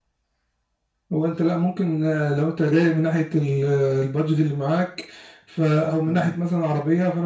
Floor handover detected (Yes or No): No